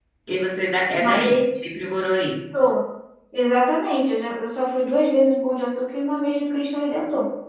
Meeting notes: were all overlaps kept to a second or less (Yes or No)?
Yes